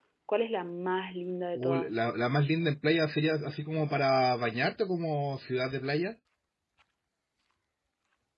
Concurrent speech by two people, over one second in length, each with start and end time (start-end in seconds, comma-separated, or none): none